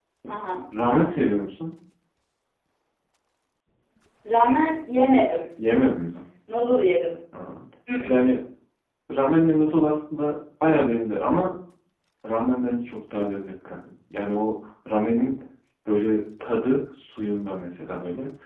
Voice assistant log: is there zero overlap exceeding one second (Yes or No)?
Yes